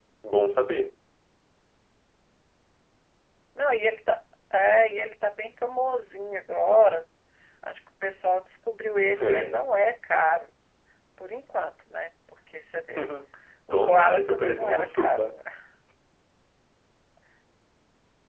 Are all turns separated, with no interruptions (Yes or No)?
No